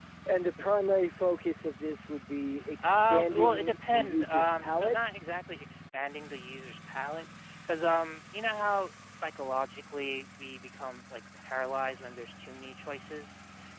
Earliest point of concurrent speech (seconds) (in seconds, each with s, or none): 2.8 s